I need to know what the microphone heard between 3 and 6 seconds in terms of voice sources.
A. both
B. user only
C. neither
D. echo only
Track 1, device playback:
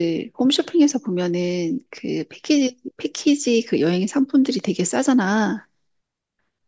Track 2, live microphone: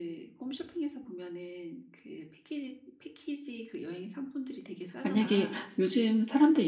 A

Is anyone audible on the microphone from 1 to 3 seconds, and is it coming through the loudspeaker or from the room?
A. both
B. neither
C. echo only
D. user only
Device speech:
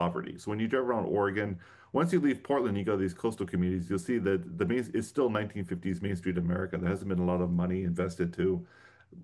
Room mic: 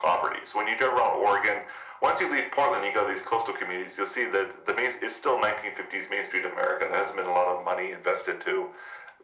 C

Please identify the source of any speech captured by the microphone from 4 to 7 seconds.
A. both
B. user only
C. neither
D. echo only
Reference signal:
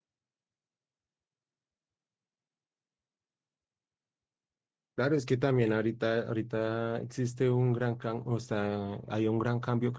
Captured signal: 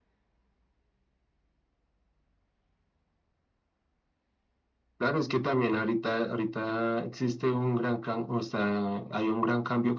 D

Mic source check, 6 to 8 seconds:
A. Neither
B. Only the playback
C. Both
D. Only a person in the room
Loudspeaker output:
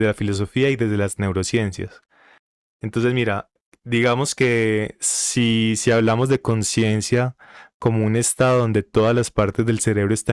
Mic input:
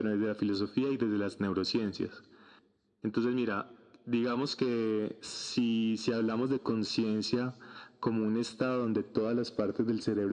B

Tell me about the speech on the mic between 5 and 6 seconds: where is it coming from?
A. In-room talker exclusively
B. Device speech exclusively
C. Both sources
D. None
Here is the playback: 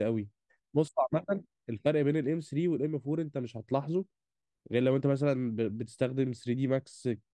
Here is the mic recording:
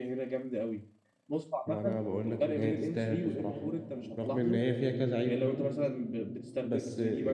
C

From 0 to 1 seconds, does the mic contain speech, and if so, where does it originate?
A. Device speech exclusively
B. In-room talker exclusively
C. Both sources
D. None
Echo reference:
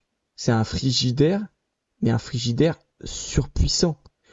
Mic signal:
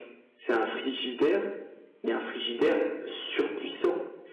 A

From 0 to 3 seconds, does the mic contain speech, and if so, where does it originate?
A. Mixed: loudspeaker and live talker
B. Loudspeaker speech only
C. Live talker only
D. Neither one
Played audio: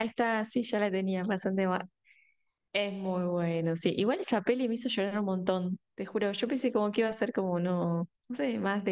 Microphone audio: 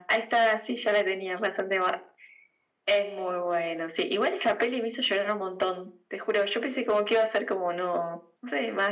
B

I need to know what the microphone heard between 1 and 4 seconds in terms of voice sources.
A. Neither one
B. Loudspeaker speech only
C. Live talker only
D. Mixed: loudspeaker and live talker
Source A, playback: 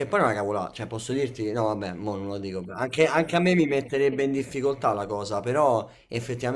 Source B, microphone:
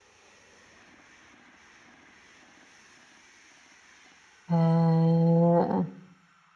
A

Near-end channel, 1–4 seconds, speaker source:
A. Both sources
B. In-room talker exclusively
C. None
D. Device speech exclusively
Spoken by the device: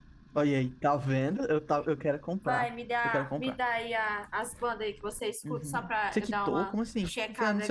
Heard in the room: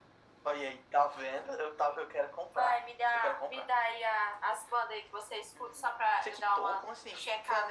D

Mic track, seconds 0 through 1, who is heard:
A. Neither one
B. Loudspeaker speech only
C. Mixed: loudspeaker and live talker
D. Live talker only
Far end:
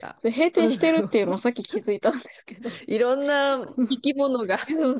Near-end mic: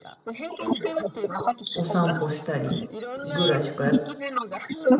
B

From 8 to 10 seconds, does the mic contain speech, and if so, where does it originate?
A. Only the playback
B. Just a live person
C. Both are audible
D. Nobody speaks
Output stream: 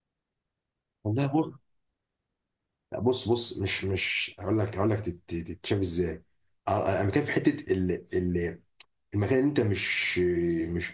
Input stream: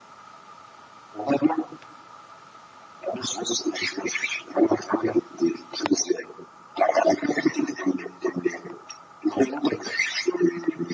A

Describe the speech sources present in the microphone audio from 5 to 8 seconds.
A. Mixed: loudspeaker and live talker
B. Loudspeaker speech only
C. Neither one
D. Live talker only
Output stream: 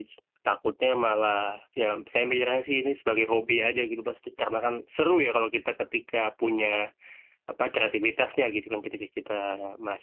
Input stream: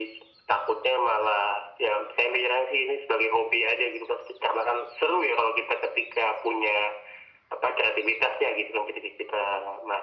B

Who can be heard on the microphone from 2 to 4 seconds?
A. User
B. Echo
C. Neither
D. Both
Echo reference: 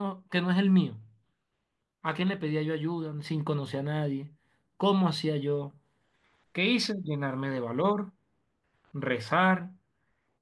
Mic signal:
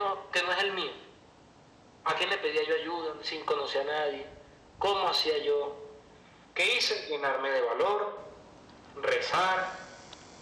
B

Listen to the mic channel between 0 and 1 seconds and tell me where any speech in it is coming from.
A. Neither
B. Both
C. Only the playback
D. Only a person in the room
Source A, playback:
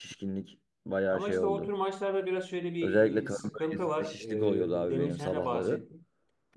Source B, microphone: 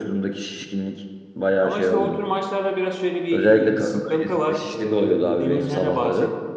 C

